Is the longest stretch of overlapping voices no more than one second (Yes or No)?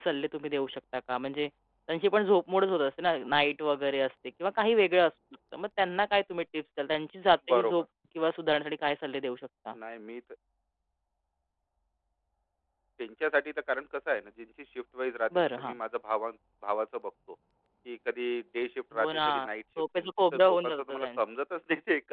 No